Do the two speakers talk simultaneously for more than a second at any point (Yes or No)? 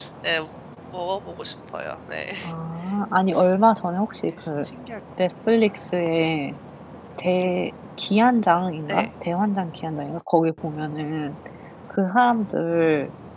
No